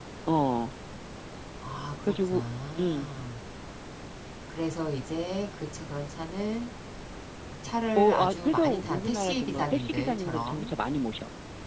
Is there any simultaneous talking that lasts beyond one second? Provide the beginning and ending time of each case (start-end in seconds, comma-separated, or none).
8.0-10.7